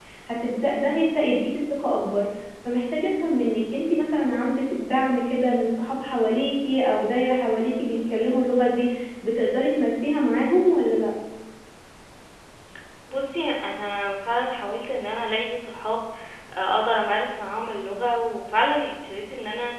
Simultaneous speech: No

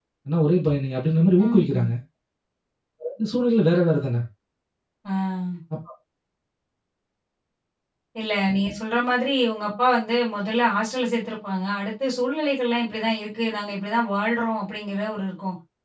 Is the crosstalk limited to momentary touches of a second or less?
Yes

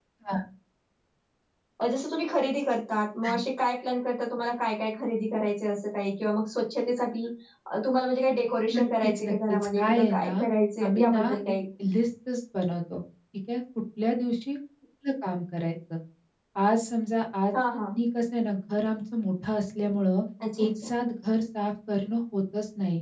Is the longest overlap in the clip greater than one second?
Yes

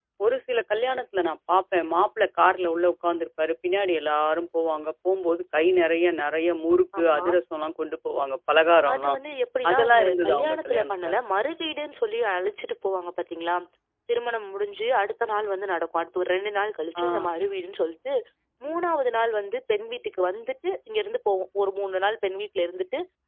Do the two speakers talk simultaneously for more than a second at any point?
Yes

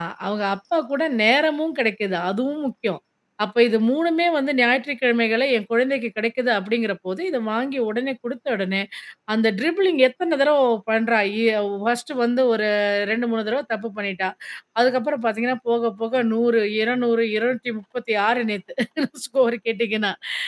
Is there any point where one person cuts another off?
No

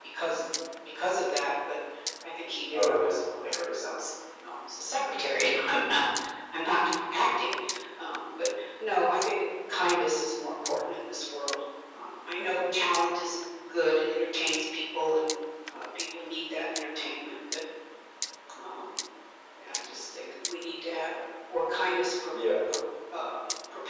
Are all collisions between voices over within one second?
Yes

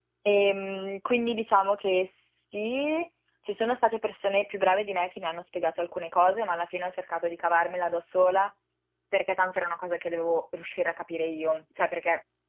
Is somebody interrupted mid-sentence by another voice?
No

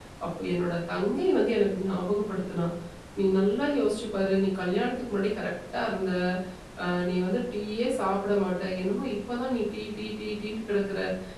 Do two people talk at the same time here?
No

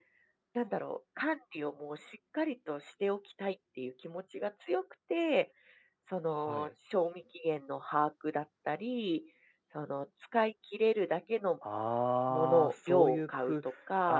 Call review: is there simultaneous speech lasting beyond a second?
Yes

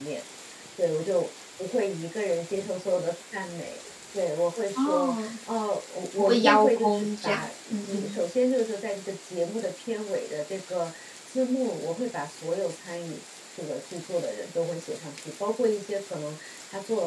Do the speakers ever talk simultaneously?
Yes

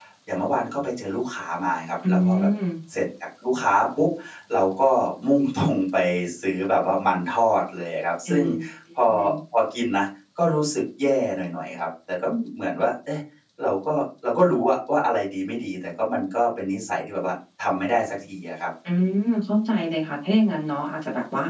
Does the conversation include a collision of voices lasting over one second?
No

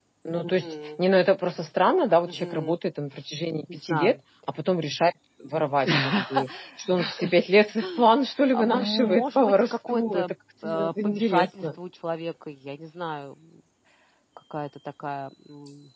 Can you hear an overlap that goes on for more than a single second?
Yes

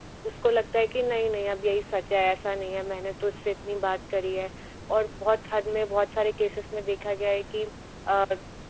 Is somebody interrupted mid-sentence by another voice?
No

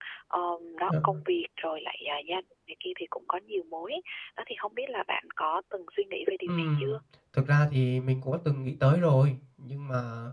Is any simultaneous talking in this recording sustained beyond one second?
No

